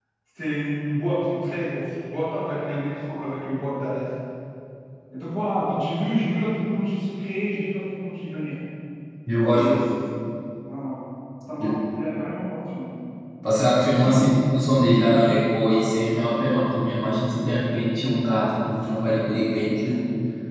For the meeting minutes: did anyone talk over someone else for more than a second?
No

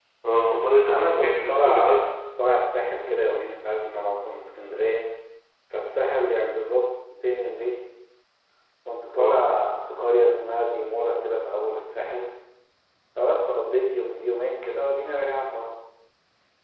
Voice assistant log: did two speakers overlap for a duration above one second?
Yes, from 0.9 s

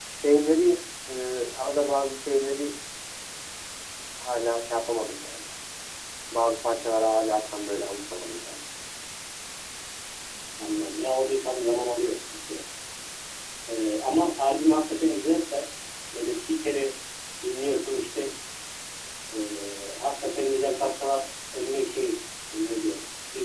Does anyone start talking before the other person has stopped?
No

